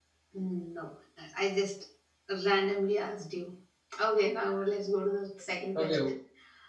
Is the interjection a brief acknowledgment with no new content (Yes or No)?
No